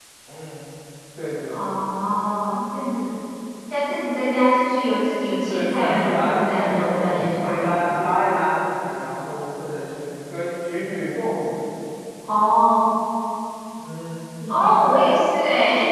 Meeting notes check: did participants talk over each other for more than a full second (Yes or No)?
Yes